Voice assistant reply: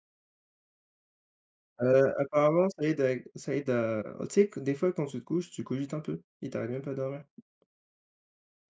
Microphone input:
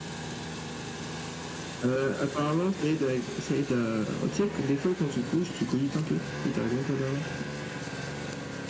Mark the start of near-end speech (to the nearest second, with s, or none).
none